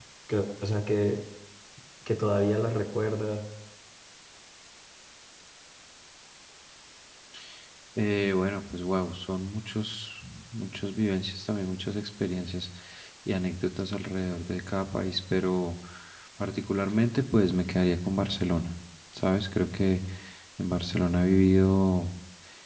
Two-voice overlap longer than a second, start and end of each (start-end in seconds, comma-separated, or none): none